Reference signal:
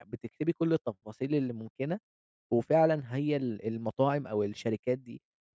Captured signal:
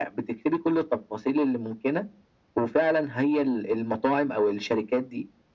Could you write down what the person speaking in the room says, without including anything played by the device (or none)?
none